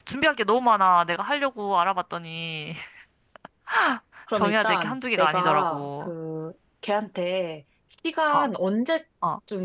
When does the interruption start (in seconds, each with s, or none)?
4.3 s